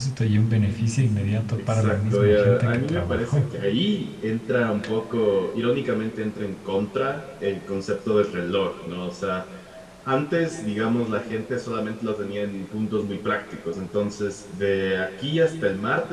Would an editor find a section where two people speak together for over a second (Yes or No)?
Yes